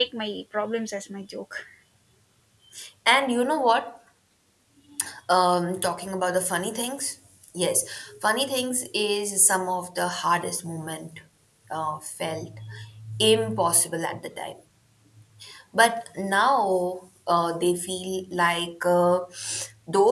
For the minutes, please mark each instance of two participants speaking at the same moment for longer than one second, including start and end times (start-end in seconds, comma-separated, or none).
none